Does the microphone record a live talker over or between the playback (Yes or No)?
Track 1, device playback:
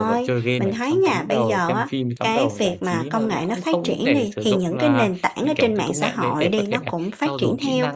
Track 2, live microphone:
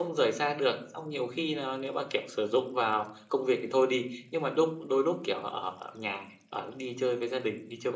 Yes